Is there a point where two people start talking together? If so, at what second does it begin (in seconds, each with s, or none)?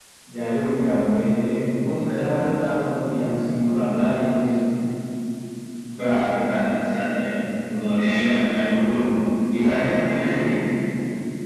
none